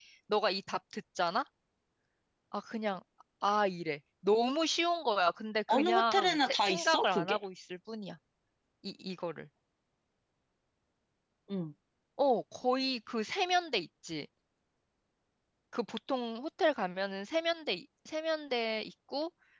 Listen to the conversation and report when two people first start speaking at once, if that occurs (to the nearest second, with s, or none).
6 s